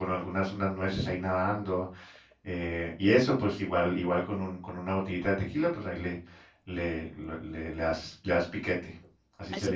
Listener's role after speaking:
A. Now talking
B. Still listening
A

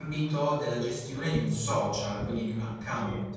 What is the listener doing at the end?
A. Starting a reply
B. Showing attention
A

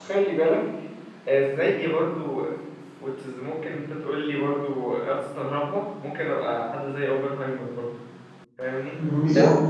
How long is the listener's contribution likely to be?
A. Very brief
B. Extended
B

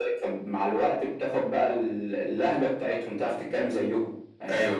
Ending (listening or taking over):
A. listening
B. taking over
B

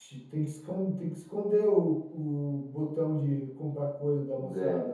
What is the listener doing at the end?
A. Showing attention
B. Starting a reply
B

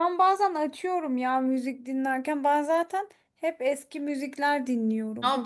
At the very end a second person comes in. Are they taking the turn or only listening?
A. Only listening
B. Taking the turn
B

